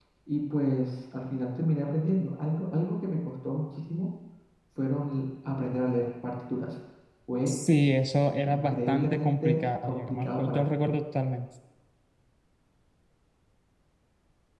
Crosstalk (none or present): present